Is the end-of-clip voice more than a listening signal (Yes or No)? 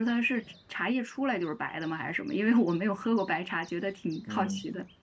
Yes